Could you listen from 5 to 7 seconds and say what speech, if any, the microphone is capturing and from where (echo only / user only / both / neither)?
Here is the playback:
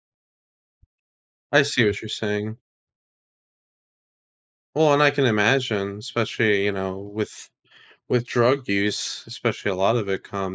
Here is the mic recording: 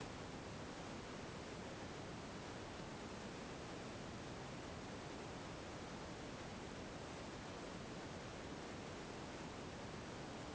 neither